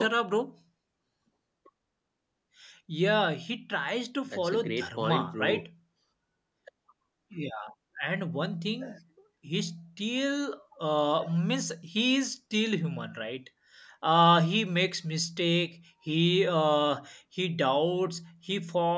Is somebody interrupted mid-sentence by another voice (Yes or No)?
Yes